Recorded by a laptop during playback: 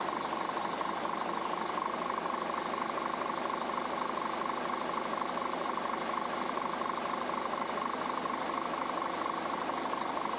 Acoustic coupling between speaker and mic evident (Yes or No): No